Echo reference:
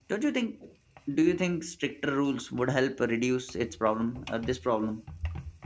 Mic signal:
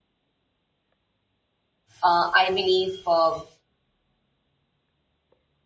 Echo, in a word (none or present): none